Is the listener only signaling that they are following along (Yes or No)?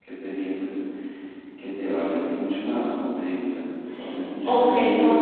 No